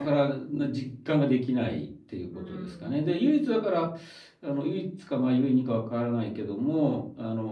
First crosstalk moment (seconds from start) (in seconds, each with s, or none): 2.3 s